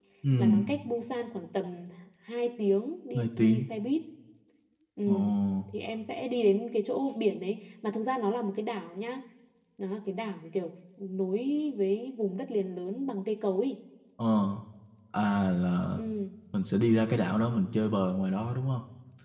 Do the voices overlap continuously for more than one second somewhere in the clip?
No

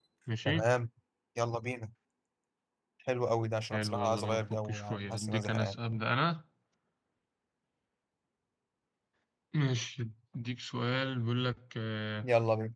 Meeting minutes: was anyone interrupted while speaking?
Yes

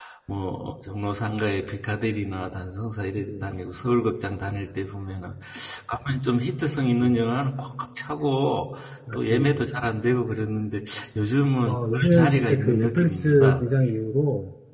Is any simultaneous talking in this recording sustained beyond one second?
Yes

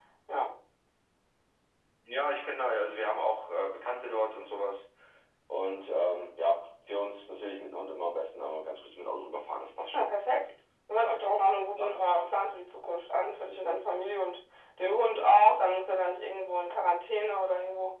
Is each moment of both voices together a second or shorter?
Yes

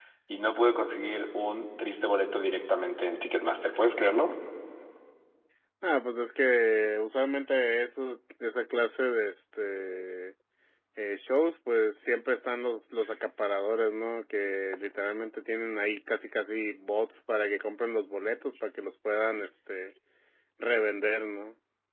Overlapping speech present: No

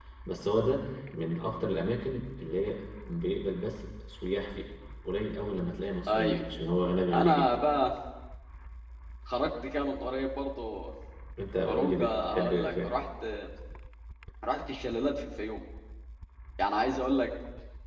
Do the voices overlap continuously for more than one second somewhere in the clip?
Yes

